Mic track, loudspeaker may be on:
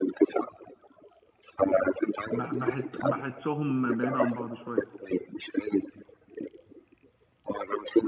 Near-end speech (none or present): present